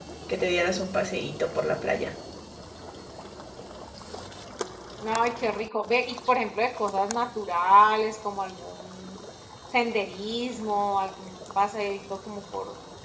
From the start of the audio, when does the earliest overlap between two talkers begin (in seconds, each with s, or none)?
none